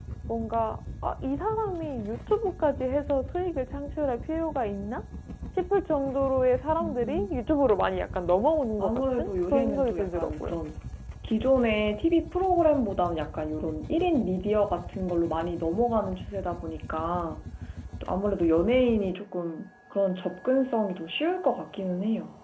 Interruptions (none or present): present